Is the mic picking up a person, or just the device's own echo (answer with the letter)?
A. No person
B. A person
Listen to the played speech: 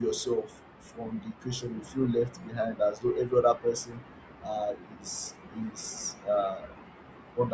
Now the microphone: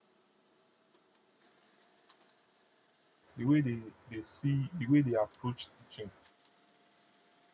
B